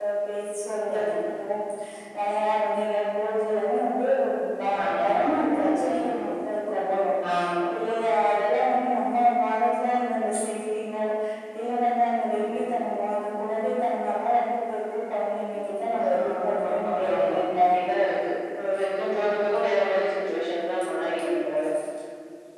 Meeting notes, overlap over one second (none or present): present